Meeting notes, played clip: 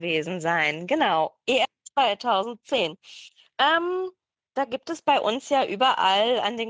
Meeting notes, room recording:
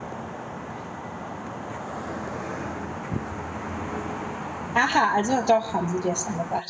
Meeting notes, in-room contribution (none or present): present